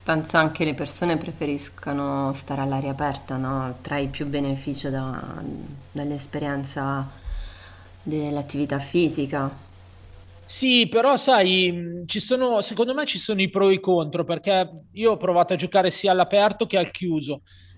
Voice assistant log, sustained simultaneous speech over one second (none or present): none